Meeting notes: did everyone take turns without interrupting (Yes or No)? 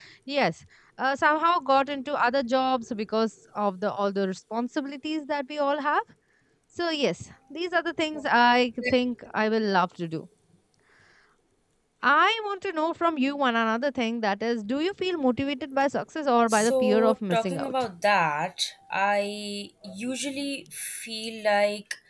No